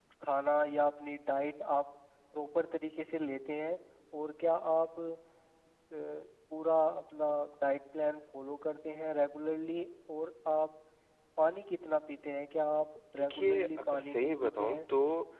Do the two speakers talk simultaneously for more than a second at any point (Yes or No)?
Yes